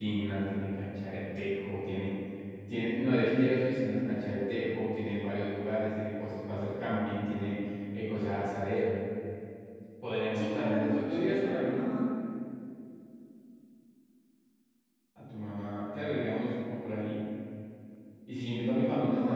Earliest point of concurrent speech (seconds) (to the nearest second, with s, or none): 10 s